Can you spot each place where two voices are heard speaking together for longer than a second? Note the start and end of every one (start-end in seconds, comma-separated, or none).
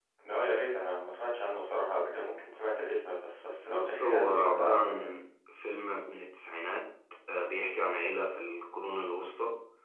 3.7-5.1